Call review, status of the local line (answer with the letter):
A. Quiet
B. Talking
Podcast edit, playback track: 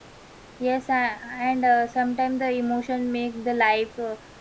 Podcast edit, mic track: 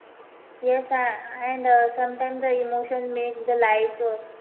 A